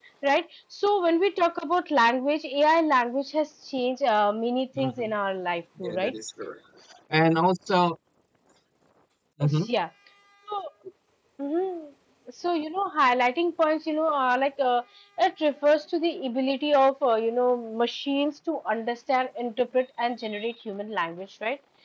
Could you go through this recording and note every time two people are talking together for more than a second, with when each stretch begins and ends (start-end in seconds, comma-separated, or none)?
none